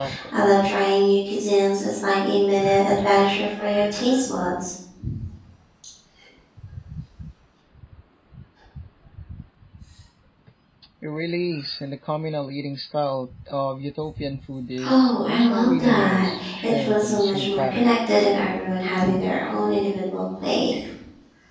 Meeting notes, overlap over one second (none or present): present